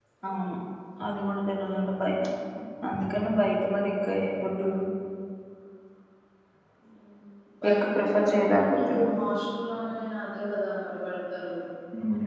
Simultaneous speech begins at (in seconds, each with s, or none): 7.7 s